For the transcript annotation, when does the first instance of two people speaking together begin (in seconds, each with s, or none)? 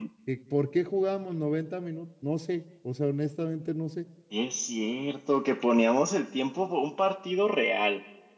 none